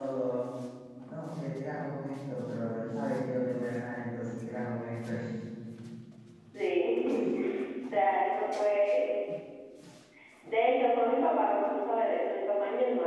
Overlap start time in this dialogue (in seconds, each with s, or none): none